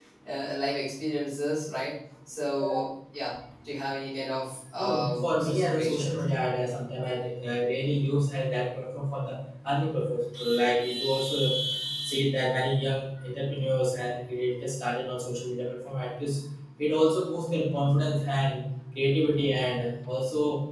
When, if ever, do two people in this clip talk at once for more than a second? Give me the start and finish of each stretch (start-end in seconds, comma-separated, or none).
4.8-6.1